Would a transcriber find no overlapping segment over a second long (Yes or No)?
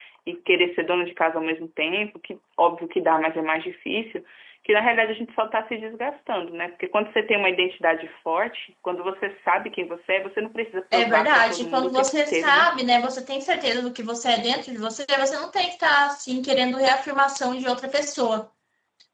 No